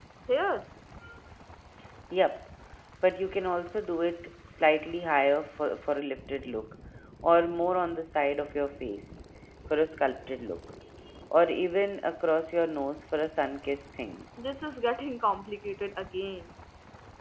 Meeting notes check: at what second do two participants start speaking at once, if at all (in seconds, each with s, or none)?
none